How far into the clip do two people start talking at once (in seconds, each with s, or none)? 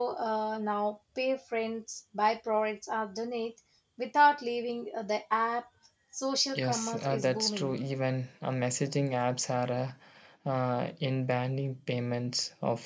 6.6 s